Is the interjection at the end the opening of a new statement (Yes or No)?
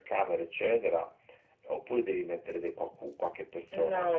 Yes